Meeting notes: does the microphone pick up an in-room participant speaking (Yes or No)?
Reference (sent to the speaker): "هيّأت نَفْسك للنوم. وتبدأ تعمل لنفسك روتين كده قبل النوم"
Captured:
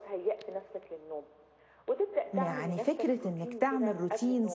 Yes